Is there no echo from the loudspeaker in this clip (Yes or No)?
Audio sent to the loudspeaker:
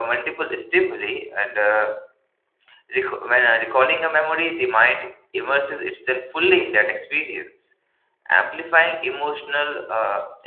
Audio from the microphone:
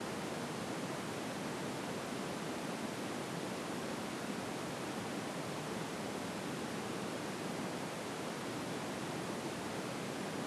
Yes